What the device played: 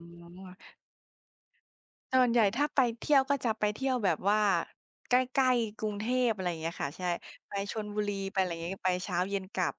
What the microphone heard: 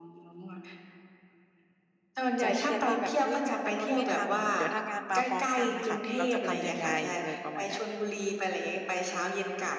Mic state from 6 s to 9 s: both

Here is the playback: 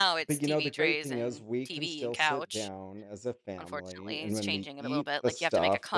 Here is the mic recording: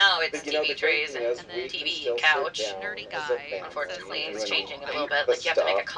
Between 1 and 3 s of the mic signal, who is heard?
both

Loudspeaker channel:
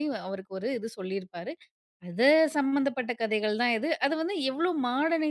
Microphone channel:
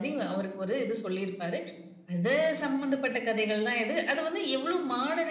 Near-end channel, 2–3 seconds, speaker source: echo only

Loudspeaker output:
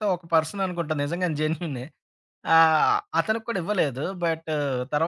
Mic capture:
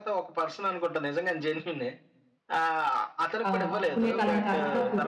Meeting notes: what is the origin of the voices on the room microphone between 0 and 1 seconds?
echo only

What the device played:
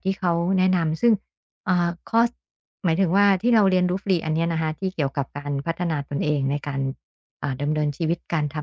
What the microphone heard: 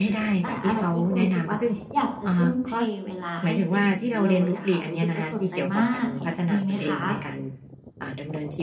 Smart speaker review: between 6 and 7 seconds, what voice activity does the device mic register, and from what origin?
both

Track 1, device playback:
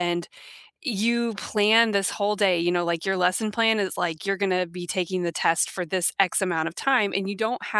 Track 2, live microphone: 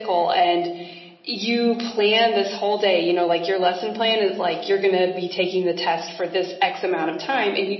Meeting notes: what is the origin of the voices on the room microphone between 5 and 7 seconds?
echo only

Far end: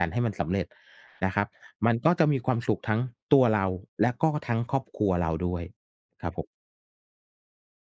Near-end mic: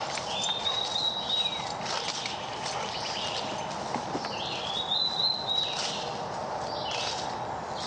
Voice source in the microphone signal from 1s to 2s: neither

